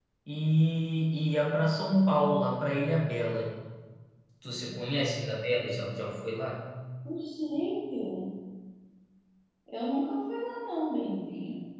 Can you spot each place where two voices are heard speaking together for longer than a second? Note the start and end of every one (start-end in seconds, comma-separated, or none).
none